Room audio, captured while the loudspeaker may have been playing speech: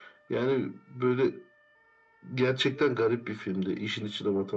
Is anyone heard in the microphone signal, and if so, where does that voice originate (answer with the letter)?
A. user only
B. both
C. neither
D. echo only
B